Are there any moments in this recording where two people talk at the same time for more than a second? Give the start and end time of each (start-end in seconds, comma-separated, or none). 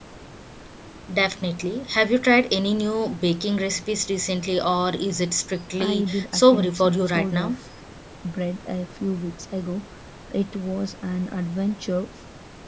5.8-7.5